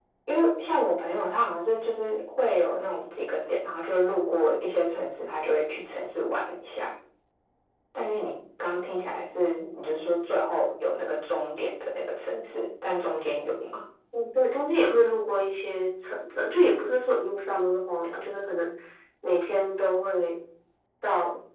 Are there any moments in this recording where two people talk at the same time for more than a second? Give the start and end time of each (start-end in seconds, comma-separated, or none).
none